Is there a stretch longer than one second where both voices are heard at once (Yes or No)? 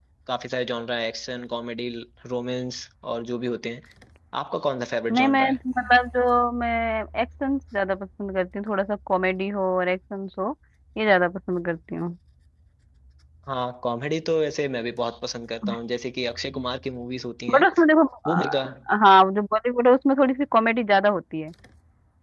No